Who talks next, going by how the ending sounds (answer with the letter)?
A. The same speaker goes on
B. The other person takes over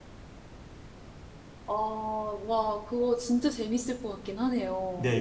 B